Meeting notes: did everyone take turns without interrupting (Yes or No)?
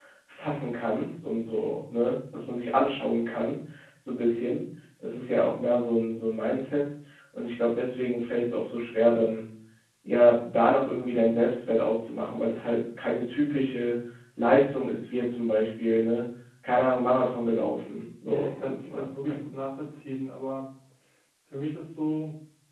No